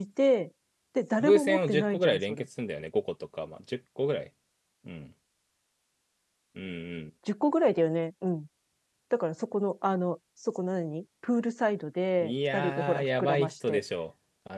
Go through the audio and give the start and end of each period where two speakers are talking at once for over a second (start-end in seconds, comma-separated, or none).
1.2-2.5, 12.2-13.8